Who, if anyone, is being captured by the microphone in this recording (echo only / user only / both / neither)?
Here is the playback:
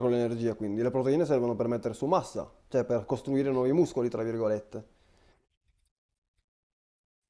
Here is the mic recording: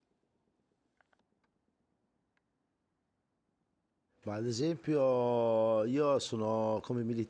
user only